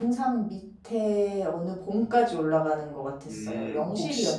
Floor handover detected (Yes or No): Yes